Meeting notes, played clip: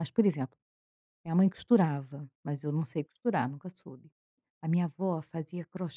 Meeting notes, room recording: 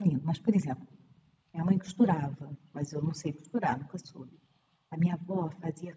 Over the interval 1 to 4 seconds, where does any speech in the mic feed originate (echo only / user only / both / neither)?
echo only